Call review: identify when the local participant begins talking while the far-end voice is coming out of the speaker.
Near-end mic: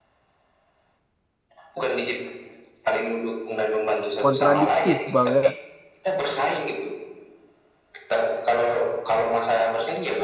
4.2 s

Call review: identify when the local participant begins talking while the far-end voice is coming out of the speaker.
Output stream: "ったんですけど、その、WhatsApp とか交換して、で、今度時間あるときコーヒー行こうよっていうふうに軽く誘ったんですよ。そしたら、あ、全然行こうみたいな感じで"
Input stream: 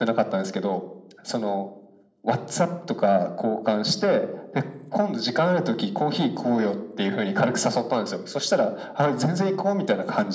none

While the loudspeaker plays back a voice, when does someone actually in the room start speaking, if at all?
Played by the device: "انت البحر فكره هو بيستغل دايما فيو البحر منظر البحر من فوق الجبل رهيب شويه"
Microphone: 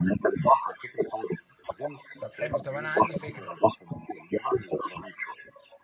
2.2 s

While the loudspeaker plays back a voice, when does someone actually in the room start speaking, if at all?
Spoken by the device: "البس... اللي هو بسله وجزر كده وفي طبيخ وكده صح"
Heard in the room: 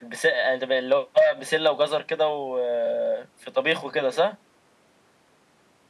none

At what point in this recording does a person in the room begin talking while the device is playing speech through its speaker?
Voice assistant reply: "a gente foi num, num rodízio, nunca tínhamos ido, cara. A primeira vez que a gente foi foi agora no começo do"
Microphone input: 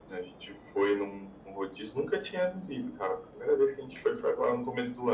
none

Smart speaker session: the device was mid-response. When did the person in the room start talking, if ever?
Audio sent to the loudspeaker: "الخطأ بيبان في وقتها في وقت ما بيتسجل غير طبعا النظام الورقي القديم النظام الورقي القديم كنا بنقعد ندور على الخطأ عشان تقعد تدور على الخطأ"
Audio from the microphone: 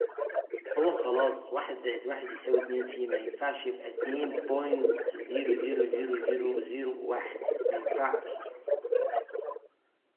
0.8 s

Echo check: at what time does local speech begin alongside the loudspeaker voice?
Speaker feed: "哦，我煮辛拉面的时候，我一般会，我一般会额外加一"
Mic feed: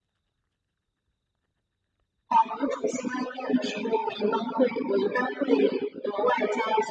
none

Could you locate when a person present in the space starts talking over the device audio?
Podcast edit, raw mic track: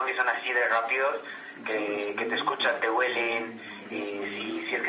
1.5 s

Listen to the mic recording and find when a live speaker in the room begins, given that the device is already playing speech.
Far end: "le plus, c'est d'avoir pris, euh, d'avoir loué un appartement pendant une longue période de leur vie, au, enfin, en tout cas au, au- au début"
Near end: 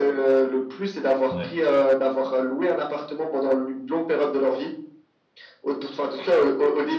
1.3 s

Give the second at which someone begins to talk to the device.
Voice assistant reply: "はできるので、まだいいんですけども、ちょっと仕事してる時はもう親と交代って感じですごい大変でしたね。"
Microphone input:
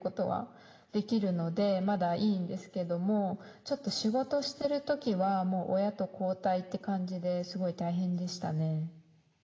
none

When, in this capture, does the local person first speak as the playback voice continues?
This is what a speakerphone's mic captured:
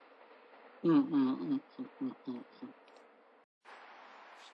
0.8 s

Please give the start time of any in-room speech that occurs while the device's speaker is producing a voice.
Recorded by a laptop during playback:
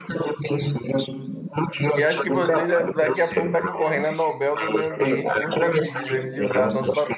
1.9 s

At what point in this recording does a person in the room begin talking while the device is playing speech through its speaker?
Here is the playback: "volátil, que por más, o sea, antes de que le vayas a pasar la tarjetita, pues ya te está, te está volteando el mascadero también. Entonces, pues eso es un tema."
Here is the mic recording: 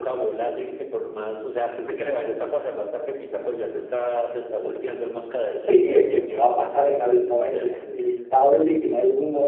5.5 s

